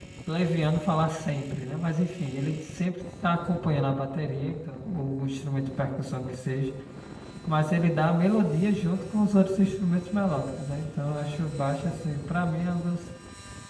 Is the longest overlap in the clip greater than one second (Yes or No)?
No